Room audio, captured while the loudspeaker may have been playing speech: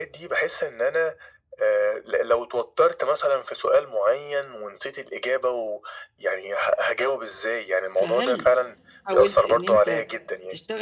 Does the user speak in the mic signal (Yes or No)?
Yes